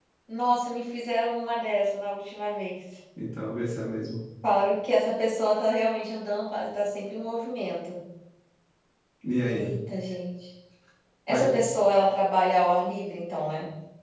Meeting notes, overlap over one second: none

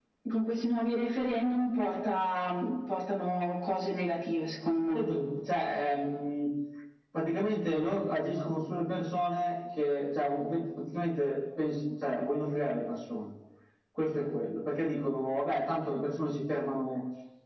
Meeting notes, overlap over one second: none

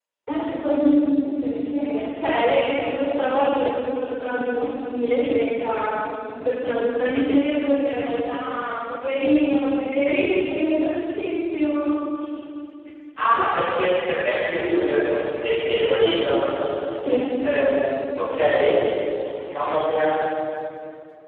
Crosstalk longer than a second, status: none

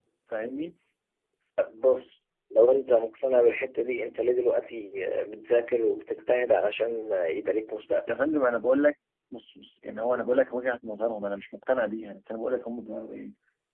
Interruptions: none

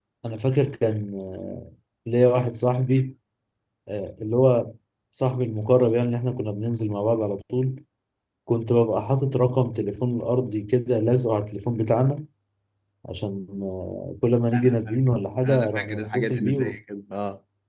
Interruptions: present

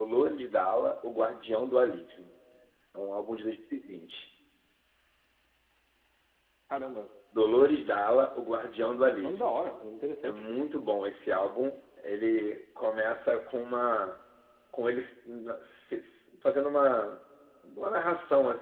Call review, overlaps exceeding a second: none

